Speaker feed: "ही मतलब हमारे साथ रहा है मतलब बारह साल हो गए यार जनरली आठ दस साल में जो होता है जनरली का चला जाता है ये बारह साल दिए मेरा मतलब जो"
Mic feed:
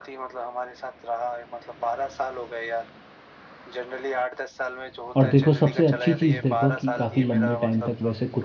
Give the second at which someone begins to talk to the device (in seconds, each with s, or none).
5.2 s